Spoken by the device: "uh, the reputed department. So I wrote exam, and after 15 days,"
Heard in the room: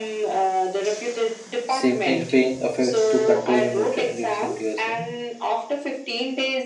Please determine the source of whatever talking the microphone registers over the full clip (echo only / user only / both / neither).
both